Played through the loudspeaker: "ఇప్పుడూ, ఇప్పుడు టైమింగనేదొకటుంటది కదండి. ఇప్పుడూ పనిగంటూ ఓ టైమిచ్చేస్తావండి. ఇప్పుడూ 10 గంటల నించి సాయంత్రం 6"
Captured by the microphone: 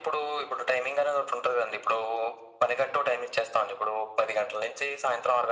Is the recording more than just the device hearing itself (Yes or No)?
No